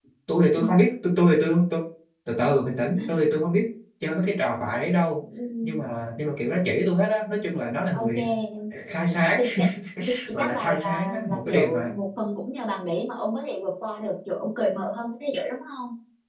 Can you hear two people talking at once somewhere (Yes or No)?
Yes